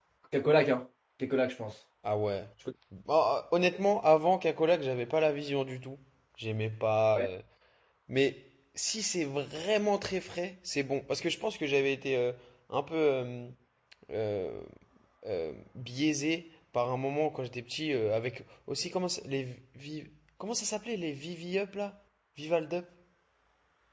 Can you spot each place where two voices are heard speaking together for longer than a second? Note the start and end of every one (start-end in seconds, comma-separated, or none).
none